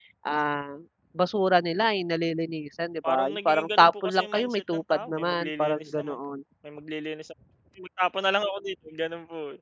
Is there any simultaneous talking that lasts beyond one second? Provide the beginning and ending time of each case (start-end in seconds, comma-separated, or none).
3.1-6.2